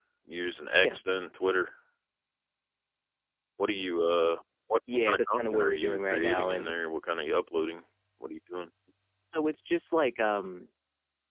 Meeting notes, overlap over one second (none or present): present